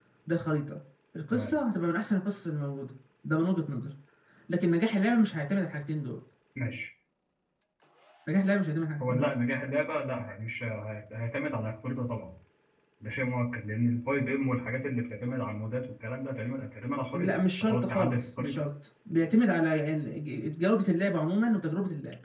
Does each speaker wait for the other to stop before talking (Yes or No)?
No